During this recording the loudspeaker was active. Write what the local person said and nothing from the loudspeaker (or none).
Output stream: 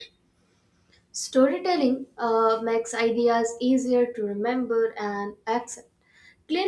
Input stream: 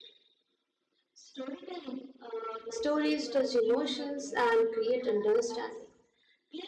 Stories touch emotions and create understanding.